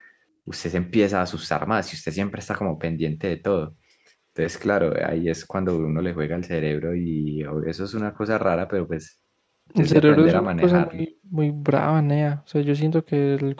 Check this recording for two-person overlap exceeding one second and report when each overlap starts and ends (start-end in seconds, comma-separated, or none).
9.8-11.0